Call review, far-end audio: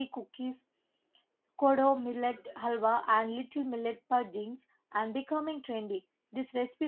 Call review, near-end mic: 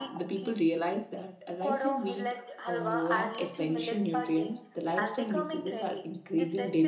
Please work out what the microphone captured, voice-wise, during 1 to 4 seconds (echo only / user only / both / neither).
both